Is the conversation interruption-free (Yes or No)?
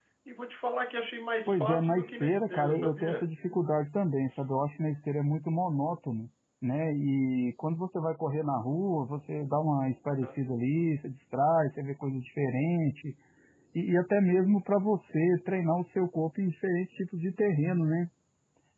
No